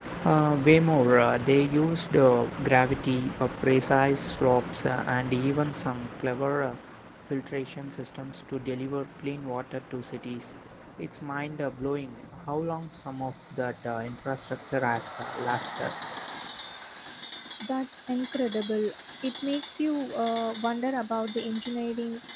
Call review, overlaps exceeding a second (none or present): none